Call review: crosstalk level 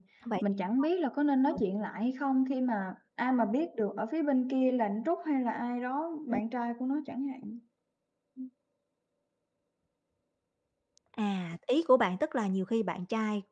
none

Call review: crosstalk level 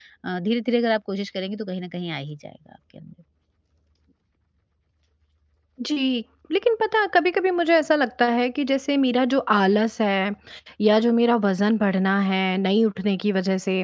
none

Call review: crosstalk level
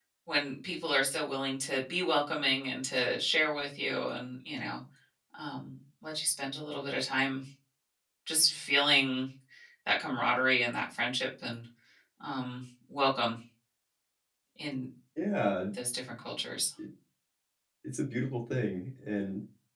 none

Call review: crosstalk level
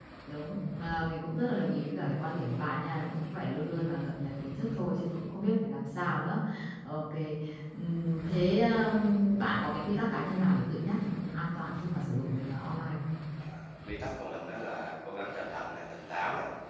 none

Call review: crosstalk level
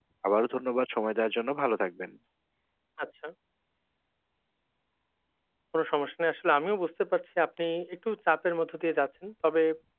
none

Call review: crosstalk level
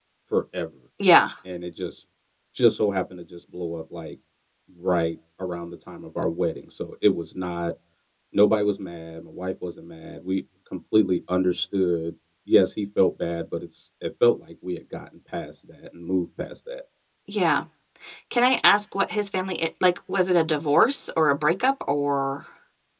none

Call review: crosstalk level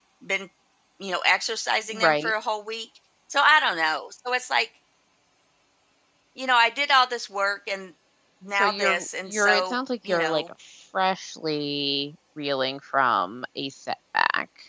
present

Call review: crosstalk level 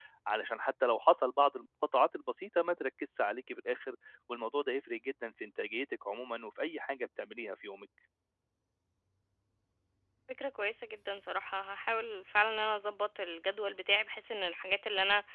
none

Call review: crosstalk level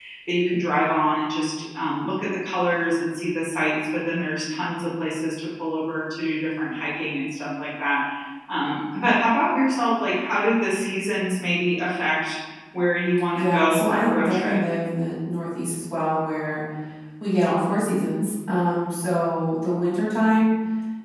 present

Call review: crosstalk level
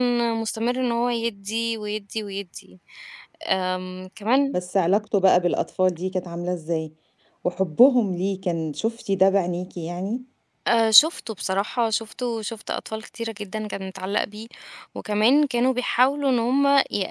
none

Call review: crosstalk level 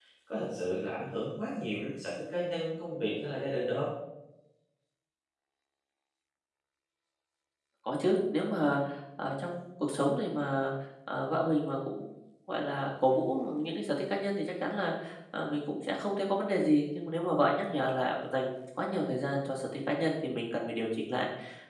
none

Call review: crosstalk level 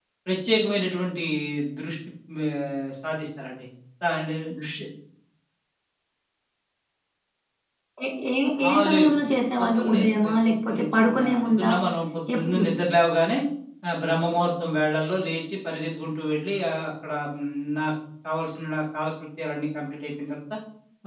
present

